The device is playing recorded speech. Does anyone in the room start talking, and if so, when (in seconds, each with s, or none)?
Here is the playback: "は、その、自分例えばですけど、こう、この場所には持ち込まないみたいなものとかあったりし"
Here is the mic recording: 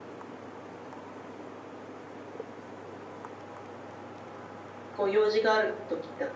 4.9 s